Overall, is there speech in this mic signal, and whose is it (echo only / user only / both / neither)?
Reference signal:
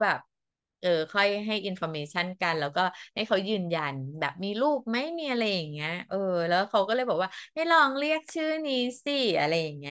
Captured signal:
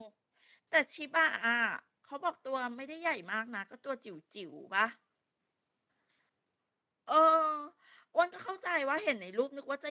user only